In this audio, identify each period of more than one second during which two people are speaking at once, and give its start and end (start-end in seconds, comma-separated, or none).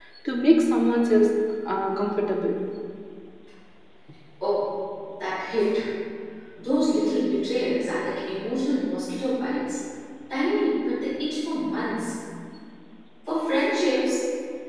none